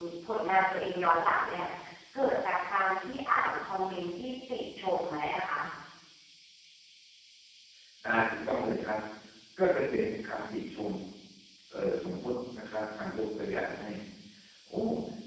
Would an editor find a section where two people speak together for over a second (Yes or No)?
No